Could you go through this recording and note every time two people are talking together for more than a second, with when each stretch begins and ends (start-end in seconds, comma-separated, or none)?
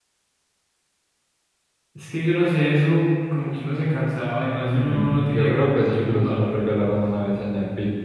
4.6-6.5